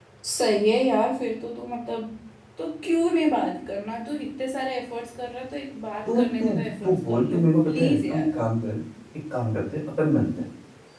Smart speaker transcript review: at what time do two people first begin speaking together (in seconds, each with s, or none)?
6.0 s